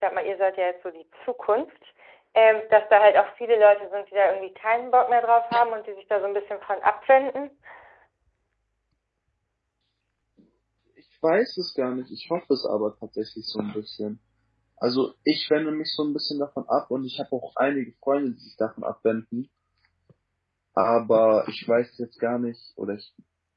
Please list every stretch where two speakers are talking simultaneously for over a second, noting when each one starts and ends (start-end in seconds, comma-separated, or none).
none